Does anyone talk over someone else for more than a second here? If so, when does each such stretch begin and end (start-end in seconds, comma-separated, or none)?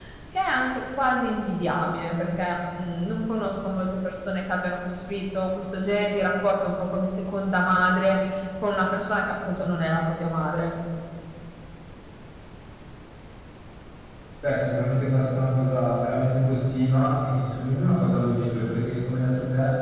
none